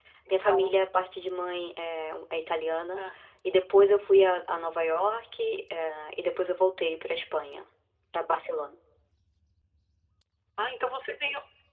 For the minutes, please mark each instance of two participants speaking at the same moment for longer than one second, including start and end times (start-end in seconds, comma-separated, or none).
none